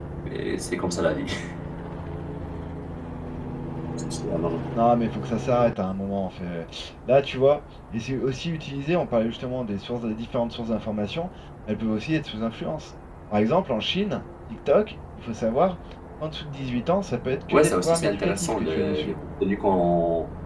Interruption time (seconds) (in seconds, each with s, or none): 17.5 s